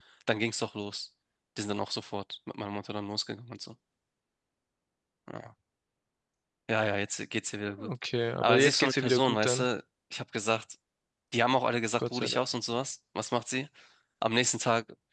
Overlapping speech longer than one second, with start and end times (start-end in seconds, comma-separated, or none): 8.4-9.7